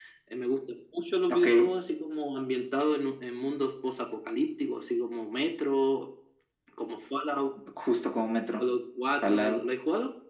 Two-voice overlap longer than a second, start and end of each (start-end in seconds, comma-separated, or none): none